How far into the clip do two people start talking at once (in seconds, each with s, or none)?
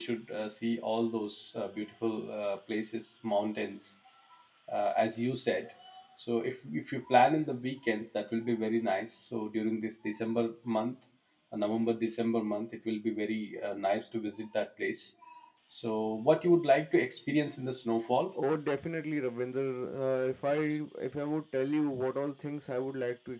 none